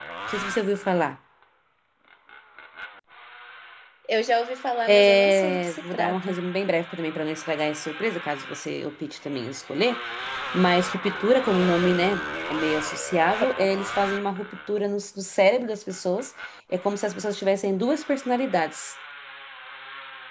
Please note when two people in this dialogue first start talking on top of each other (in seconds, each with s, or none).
4.9 s